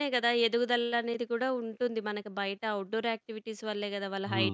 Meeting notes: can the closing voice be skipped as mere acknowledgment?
No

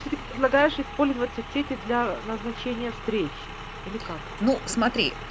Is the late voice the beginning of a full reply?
Yes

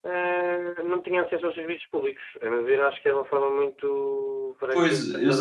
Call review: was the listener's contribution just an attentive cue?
No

